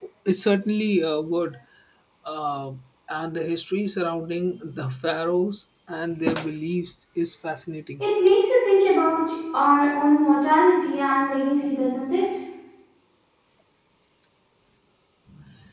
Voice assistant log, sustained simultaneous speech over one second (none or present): none